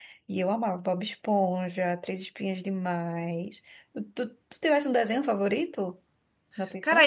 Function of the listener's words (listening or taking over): taking over